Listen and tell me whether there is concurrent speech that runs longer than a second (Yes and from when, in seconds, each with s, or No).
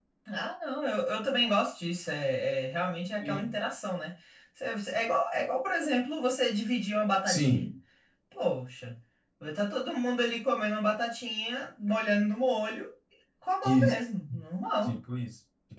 No